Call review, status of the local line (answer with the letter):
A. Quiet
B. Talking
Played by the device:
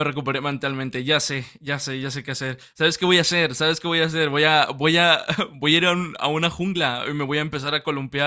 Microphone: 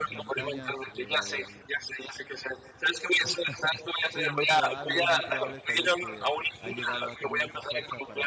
B